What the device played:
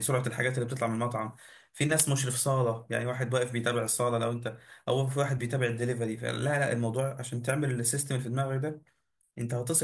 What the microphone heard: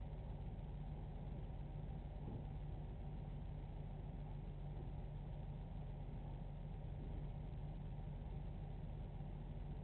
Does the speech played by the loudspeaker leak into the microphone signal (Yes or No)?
No